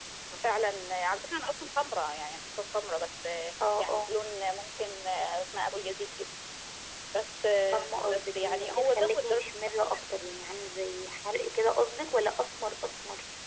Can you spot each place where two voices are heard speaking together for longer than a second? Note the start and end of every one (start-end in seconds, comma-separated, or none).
7.7-9.9